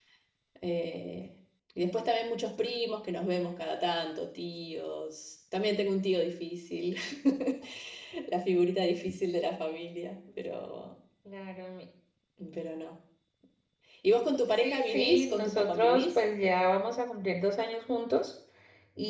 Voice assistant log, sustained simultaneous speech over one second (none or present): present